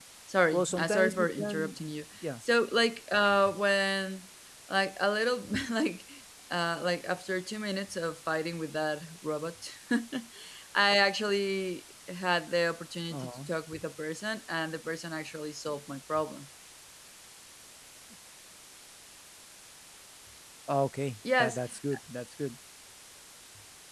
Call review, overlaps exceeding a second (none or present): present